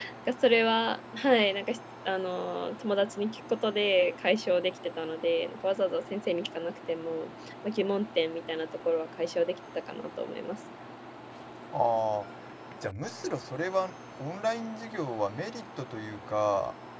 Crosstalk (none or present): none